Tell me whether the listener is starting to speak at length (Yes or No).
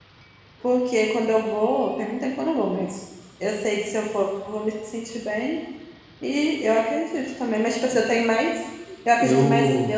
No